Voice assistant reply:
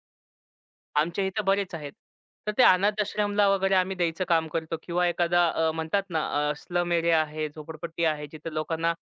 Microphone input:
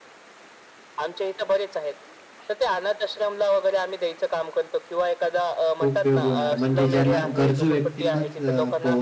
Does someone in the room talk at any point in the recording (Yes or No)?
Yes